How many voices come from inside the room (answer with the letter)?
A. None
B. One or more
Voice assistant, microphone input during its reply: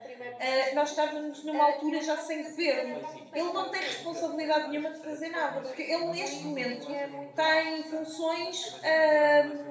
B